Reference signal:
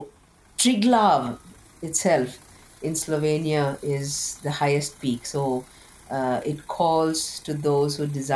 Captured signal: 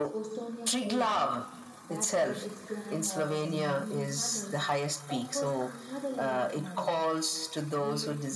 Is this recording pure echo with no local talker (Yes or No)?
No